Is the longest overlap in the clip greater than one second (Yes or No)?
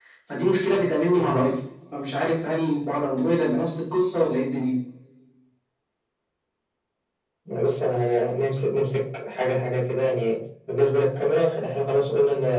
No